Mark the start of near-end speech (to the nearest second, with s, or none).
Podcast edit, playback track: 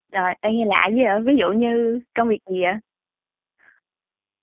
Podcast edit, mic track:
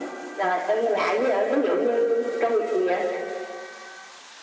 none